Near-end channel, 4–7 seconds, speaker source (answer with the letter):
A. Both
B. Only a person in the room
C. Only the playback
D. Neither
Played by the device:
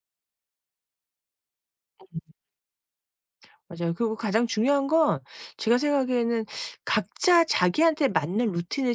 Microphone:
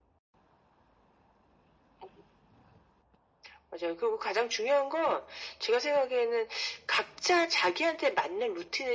C